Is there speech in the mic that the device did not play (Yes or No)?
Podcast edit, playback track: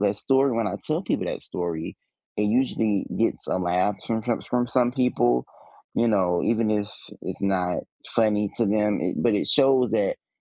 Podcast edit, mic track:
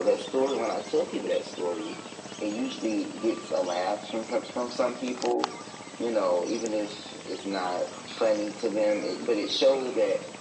No